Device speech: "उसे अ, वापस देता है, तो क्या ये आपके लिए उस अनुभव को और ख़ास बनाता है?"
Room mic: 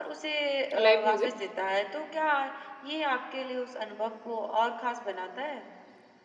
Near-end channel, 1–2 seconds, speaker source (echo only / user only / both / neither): both